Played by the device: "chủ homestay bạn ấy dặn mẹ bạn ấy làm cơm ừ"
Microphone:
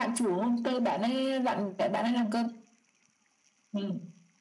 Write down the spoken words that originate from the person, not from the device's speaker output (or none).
none